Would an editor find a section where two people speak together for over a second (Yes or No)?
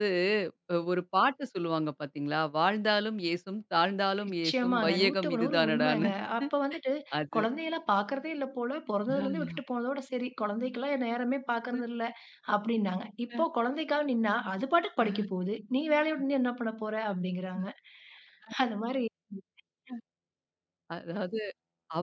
Yes